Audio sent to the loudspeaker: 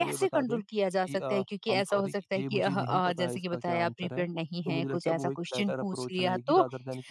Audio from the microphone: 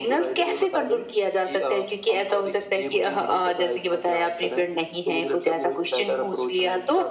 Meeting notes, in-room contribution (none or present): none